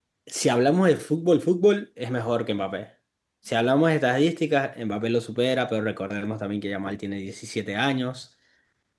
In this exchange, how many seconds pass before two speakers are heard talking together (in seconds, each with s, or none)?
none